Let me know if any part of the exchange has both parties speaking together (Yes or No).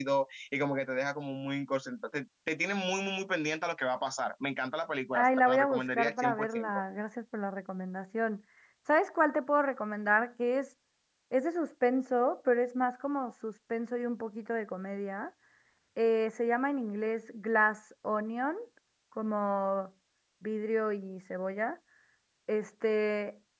Yes